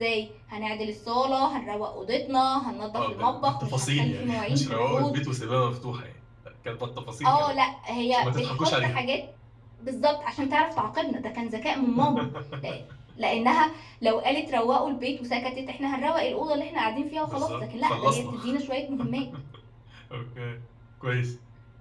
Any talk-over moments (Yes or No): Yes